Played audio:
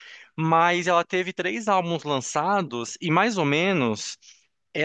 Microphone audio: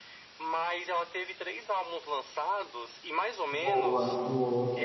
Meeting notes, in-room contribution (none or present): present